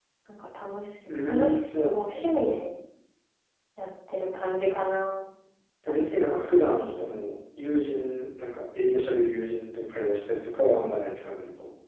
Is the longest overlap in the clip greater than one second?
Yes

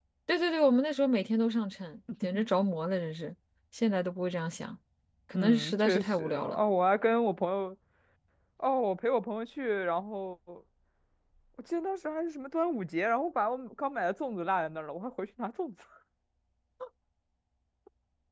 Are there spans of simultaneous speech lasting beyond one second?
Yes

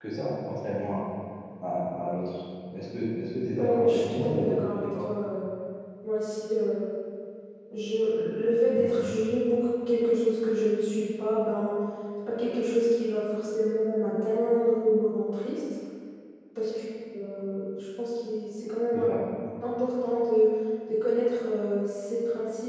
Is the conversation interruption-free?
No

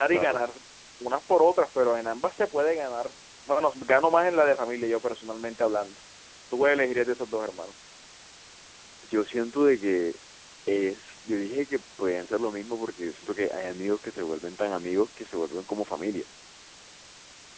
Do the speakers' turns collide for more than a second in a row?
No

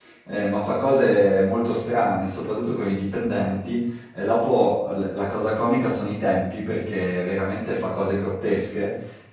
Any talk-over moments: No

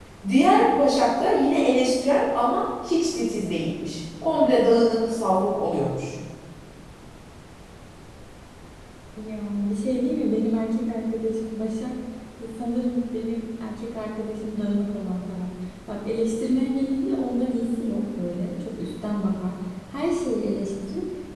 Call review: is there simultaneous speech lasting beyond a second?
No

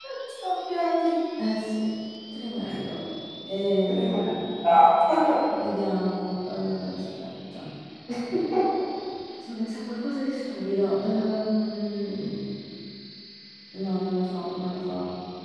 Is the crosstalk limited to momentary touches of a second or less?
Yes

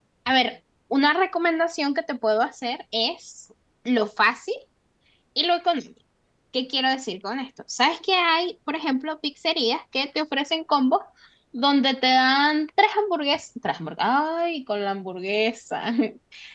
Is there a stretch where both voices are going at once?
No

